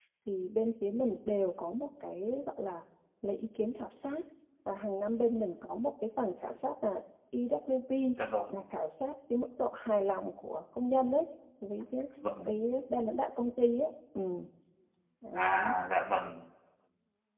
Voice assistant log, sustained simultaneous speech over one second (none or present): none